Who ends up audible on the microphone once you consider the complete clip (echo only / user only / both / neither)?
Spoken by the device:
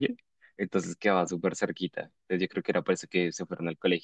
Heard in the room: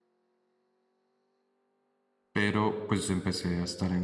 user only